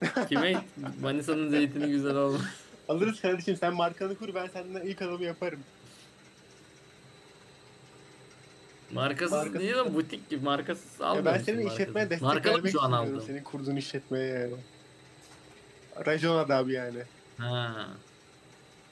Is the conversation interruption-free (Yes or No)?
No